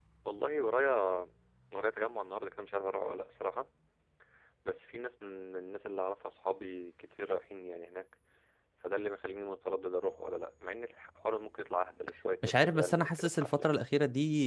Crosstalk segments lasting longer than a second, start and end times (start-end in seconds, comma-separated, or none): 12.4-13.8